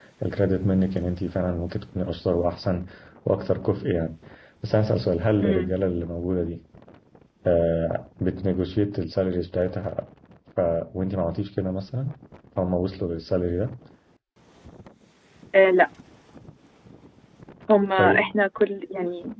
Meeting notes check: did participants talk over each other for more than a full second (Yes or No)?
No